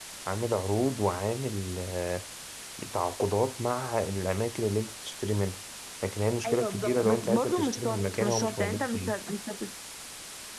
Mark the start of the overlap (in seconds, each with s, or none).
6.5 s